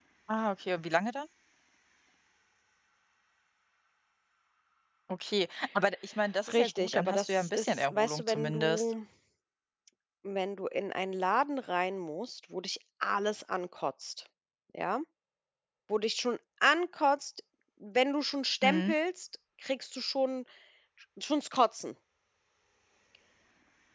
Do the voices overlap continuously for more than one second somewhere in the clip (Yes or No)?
Yes